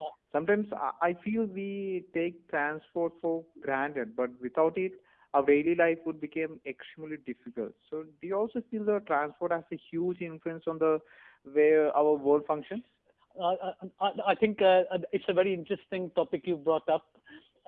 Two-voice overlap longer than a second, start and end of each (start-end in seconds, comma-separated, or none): none